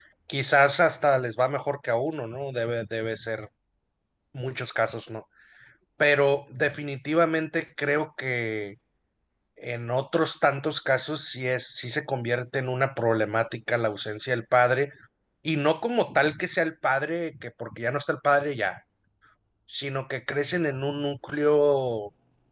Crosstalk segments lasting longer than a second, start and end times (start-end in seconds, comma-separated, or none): none